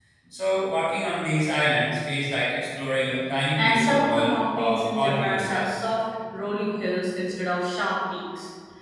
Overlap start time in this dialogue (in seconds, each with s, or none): 3.6 s